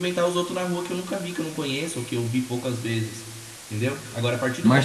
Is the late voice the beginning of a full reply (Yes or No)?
No